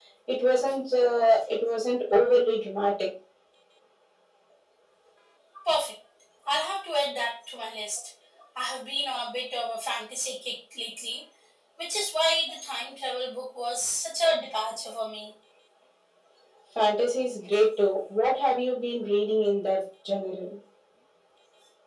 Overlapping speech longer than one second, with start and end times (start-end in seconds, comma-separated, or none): none